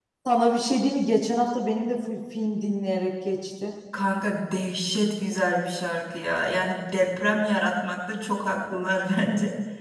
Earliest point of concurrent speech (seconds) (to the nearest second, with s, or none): none